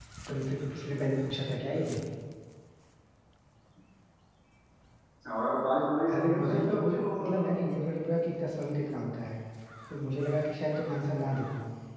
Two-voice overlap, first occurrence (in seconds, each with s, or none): 6.1 s